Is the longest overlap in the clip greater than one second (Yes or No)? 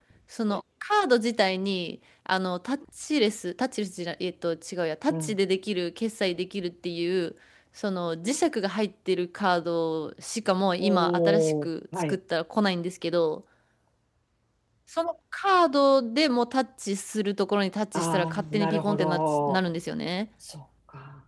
Yes